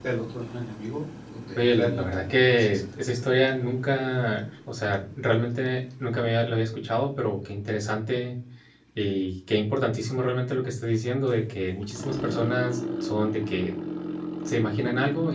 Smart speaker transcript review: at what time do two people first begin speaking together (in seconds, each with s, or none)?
1.6 s